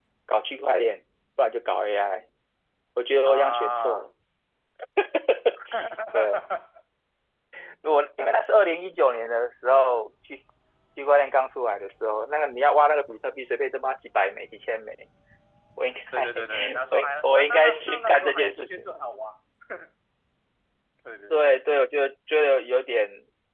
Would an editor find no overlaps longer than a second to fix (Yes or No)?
No